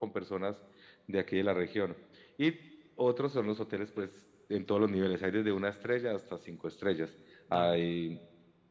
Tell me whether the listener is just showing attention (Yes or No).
Yes